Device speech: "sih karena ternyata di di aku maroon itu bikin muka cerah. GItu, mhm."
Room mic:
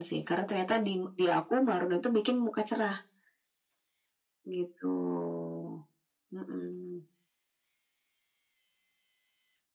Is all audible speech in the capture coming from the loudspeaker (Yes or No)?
Yes